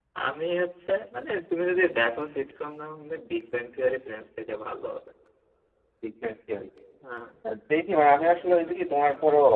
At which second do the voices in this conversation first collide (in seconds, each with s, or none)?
none